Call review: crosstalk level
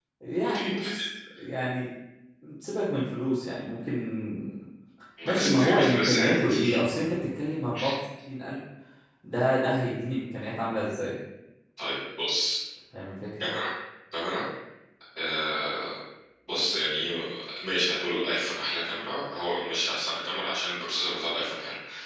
present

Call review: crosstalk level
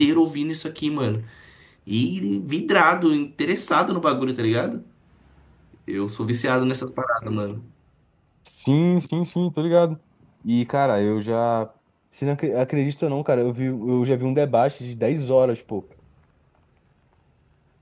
none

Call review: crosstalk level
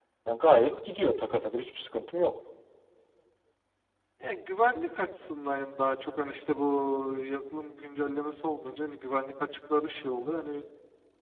none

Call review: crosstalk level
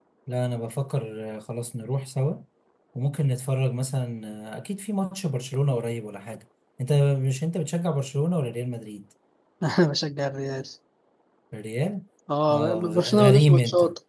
present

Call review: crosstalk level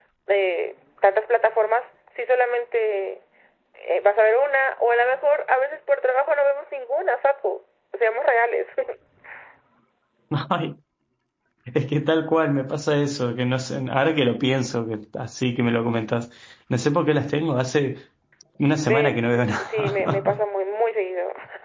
present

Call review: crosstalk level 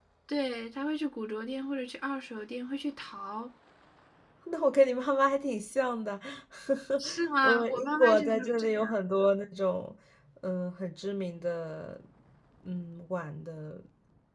present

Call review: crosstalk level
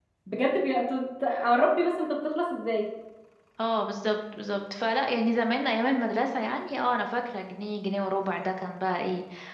none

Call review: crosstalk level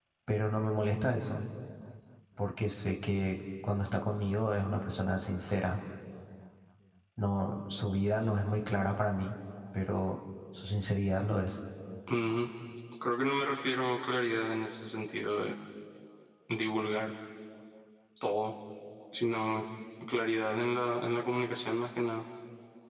none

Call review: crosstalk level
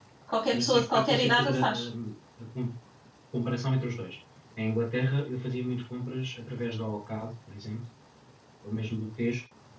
present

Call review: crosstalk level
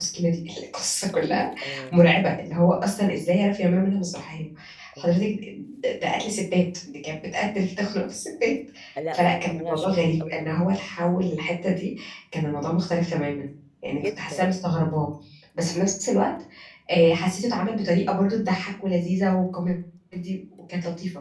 present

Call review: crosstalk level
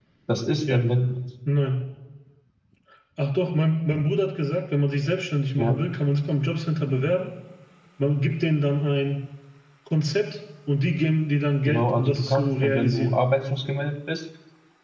present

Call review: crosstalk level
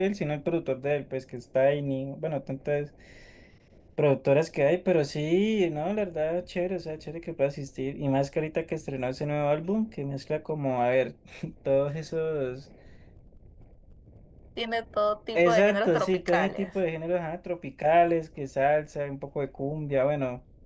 present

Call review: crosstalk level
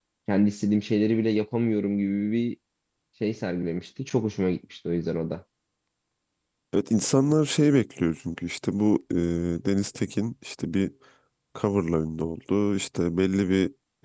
none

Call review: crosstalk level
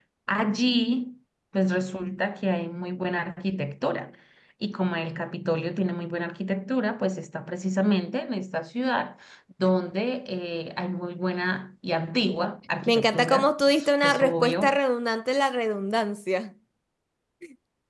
present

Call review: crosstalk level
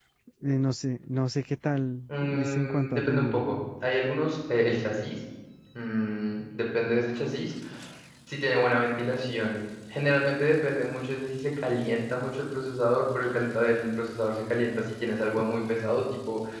present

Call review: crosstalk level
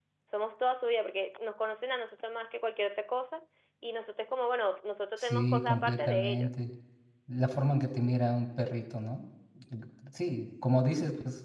present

